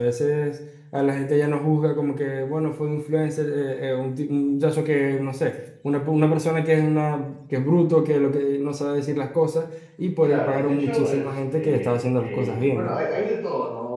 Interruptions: present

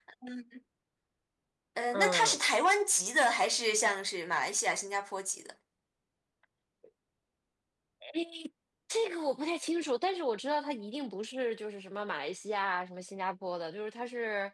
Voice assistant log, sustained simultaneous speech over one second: none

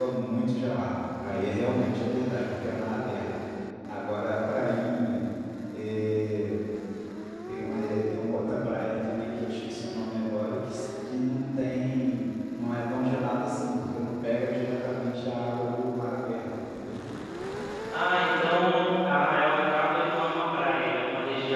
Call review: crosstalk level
none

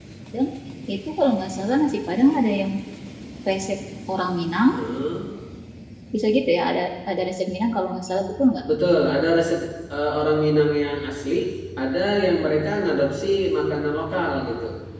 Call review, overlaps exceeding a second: none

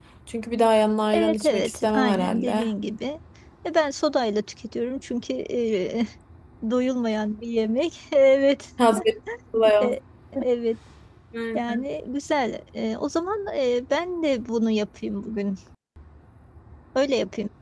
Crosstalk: present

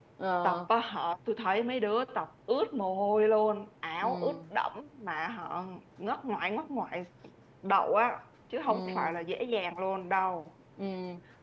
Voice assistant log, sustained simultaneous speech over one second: none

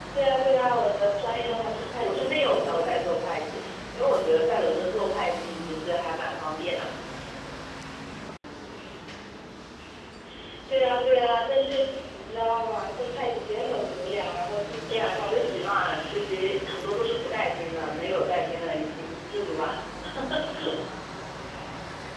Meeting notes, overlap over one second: present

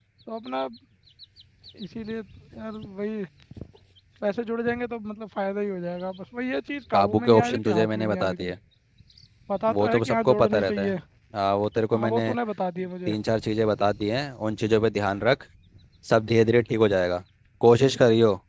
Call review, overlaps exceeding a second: present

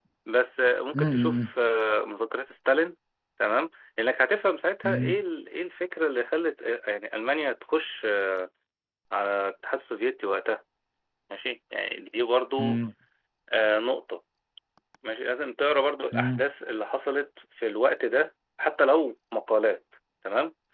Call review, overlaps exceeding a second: none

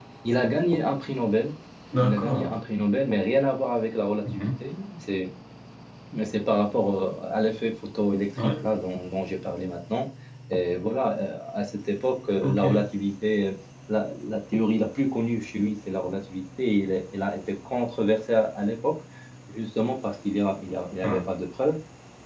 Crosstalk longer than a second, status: none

